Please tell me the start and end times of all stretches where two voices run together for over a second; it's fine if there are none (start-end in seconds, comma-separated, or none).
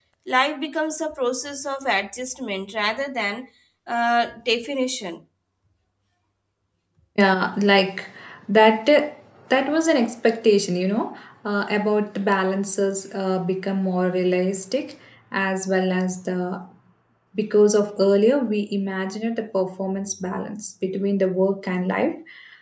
none